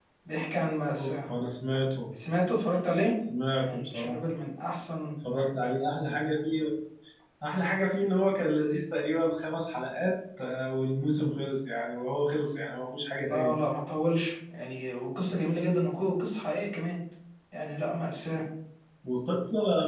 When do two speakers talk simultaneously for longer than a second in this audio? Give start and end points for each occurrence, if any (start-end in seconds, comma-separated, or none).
none